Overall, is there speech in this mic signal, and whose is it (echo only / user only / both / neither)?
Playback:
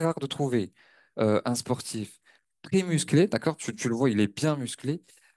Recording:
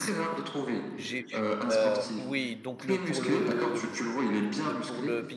both